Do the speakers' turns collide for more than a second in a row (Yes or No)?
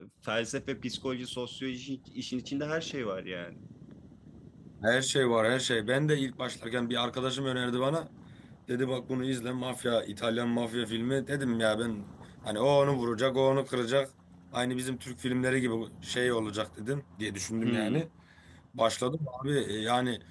No